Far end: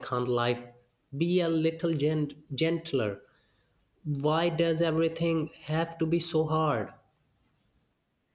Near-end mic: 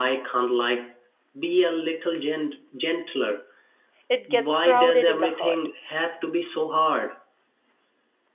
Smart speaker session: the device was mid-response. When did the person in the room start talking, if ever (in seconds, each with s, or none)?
4.1 s